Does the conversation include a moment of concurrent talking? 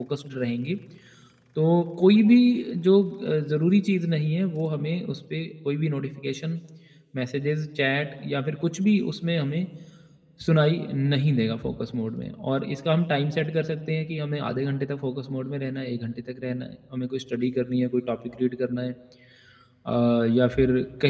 No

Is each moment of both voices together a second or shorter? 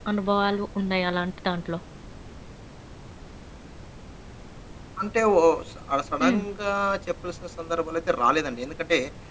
Yes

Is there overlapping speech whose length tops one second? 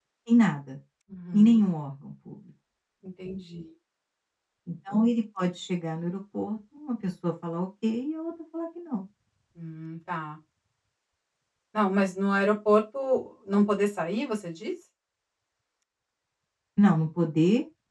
No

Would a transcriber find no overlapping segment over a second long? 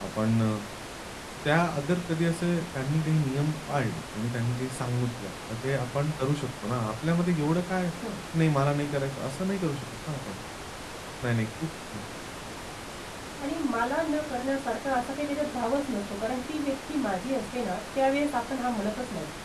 Yes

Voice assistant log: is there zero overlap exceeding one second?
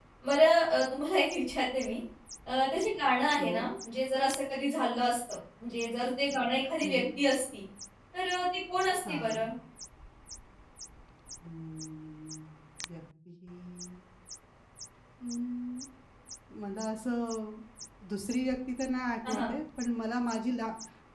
Yes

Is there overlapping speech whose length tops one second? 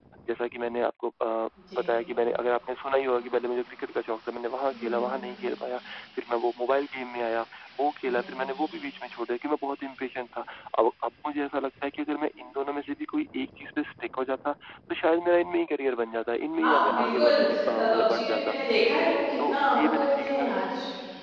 Yes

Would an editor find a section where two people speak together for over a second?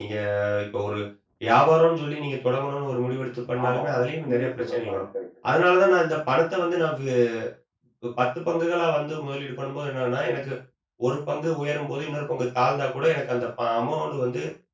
Yes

